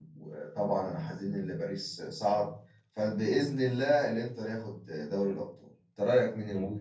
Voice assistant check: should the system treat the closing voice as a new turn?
Yes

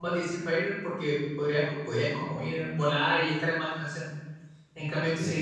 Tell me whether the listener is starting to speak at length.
No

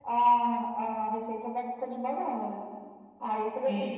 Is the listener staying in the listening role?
Yes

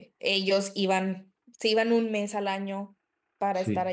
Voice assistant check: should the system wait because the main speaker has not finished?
Yes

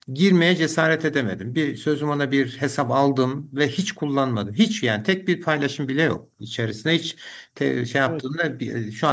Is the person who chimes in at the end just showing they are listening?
Yes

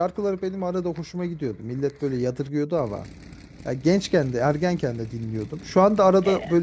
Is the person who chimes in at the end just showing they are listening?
Yes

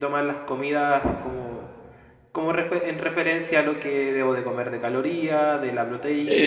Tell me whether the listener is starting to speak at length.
No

